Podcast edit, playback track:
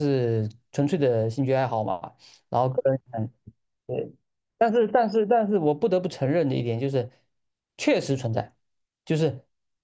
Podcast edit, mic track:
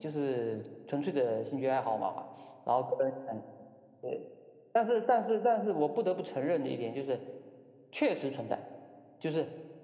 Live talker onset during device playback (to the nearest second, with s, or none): none